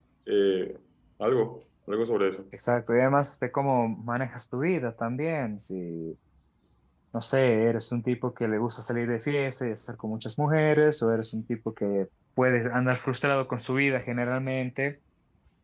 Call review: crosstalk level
none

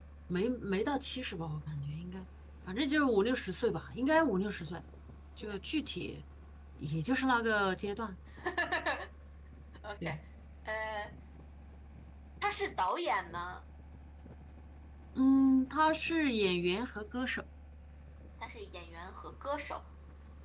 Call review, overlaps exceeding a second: none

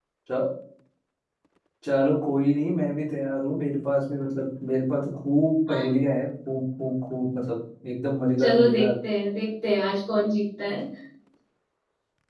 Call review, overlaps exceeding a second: none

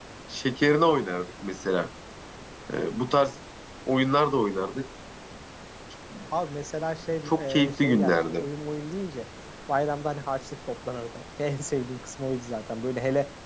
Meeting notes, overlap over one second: present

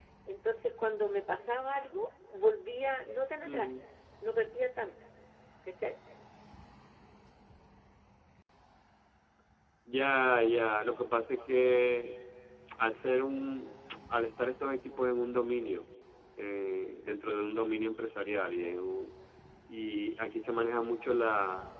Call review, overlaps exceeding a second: none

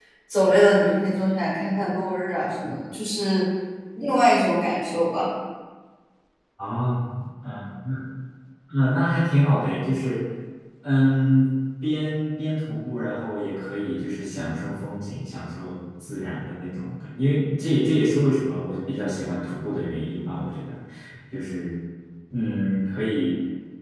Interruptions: none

